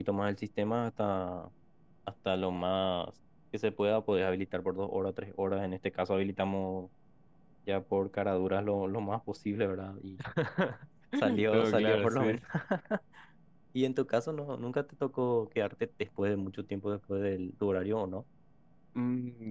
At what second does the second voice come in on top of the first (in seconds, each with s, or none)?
11.2 s